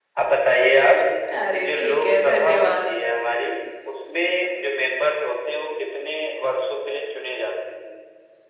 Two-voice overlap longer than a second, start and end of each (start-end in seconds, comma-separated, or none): 1.5-2.9